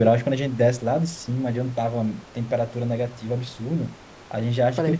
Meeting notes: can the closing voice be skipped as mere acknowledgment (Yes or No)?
Yes